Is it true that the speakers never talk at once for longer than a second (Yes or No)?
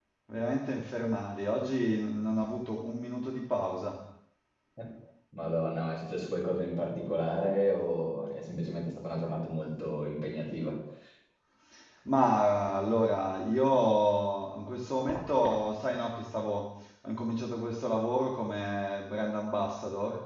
Yes